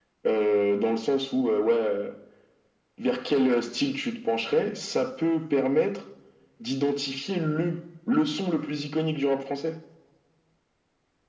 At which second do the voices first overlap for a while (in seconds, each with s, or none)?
none